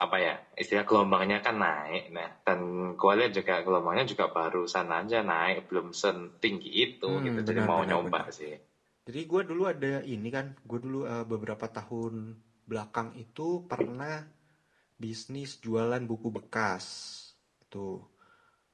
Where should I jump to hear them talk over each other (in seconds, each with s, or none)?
7.1 s